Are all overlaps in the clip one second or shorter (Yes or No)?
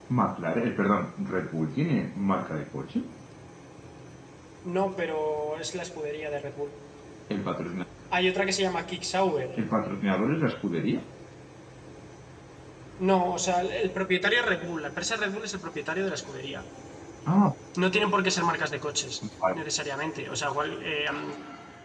Yes